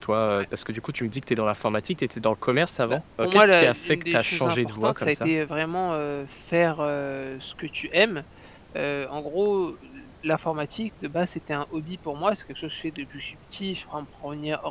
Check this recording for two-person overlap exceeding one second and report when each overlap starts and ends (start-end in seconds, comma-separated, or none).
2.9-5.3